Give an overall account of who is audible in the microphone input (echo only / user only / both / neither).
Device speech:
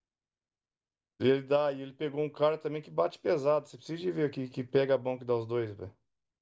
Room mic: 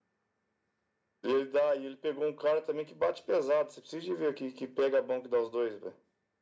echo only